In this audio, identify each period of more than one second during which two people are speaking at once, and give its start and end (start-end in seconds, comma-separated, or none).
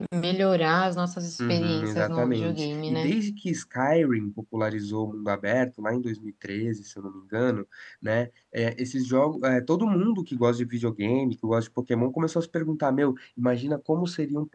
1.5-3.1